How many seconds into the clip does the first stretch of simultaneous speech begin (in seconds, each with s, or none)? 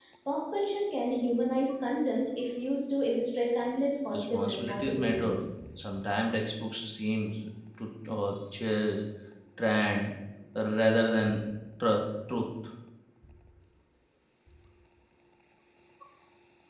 4.1 s